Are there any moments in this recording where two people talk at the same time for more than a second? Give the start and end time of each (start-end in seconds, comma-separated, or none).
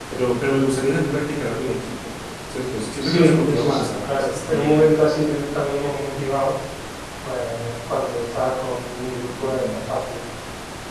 3.0-4.8